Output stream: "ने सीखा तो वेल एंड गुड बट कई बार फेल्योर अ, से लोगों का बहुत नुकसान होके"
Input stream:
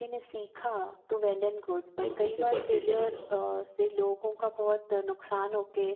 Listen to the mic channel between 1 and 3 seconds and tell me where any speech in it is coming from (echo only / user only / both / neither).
both